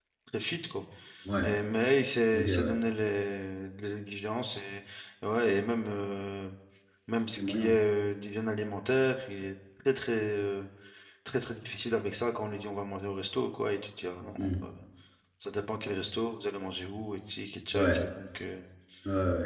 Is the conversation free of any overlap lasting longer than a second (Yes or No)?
Yes